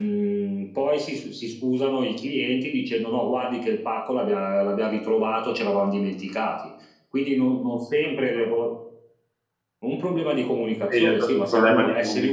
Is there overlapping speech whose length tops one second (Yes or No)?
Yes